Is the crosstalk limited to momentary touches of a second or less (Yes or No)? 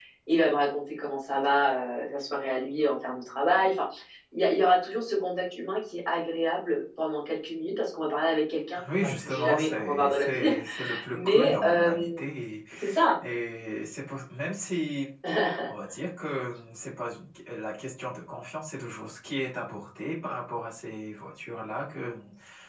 No